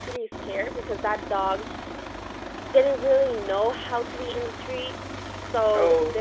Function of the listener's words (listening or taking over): listening